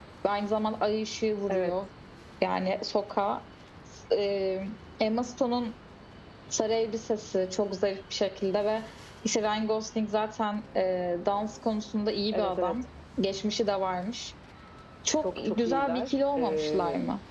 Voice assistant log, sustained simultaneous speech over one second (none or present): present